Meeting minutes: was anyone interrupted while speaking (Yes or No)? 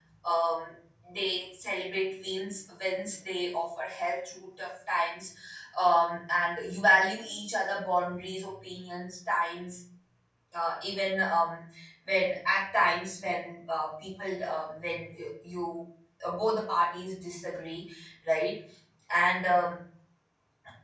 No